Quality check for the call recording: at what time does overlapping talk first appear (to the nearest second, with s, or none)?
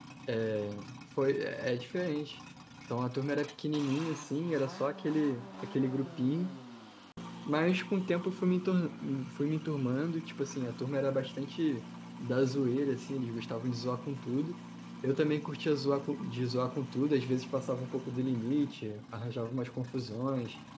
none